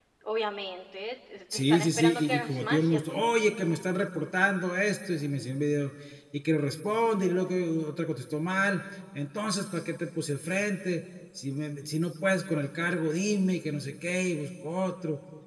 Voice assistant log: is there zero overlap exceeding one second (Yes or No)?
No